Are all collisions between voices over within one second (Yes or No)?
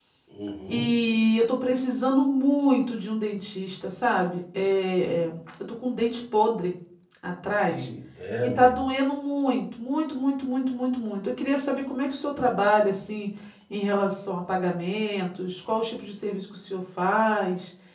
Yes